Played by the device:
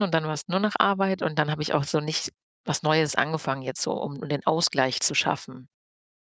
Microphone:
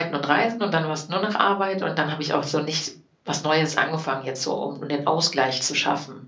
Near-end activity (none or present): none